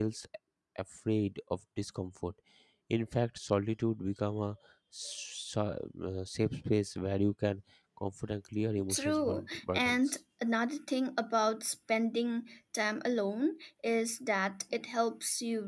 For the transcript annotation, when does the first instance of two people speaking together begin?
8.8 s

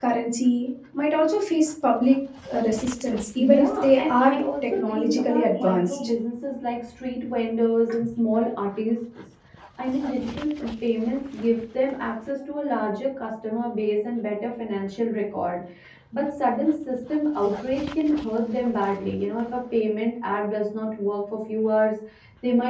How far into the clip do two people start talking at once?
3.4 s

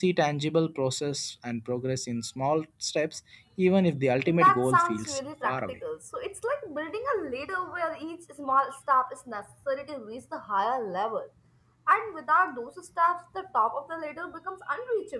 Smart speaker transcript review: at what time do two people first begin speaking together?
4.3 s

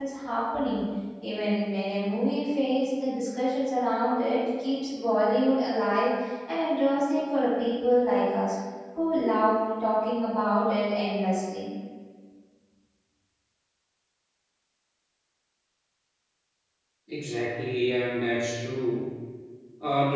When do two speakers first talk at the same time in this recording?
none

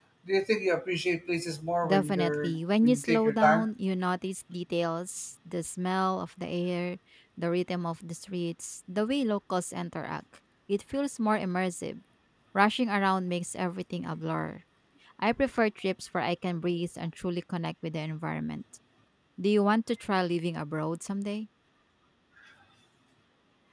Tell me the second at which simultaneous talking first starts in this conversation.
1.8 s

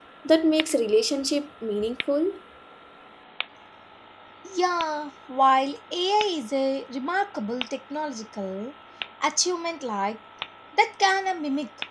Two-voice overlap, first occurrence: none

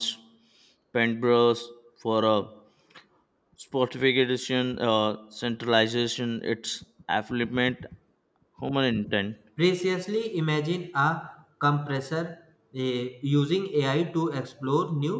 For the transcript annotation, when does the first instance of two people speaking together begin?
none

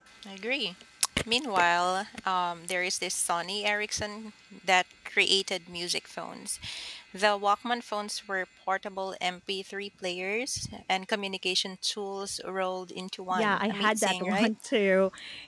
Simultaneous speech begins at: 13.3 s

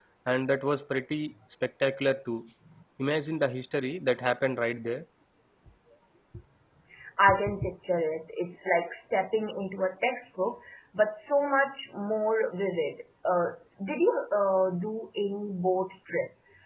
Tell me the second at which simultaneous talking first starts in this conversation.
none

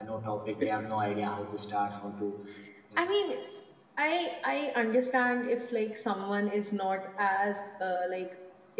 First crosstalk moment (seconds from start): none

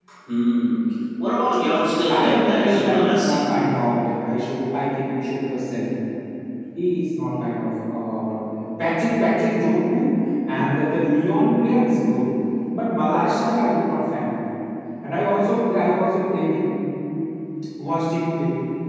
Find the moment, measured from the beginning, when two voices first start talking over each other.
2.1 s

